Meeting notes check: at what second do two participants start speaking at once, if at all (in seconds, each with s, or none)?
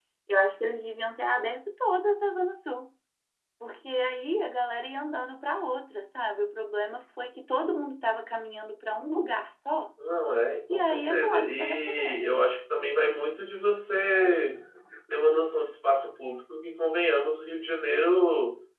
10.7 s